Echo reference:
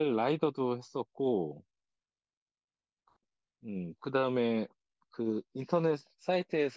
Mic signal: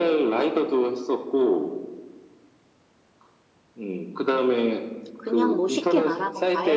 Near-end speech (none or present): present